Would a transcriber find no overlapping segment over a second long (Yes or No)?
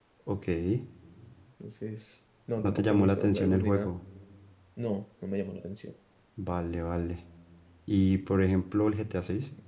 No